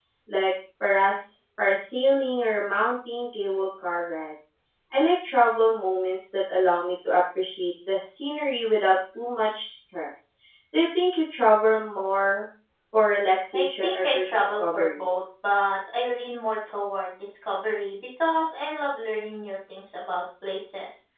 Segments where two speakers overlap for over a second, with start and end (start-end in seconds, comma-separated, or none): 13.5-15.0